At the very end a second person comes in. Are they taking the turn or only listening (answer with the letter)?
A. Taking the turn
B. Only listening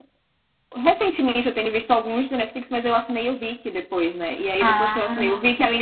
B